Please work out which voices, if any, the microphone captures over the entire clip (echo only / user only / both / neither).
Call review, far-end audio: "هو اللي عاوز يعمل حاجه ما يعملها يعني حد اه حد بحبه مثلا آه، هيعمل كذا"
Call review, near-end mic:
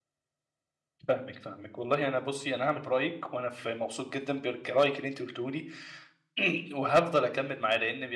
user only